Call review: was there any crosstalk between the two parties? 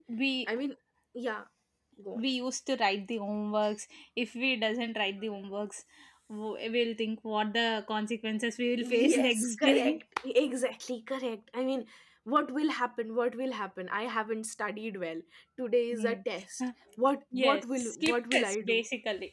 Yes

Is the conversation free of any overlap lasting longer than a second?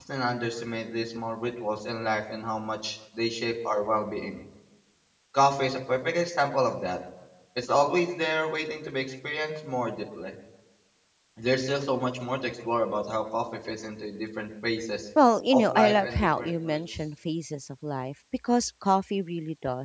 No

